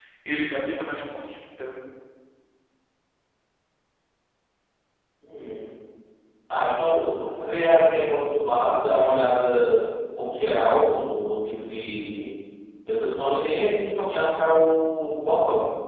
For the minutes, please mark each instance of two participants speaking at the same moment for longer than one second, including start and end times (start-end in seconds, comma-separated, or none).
none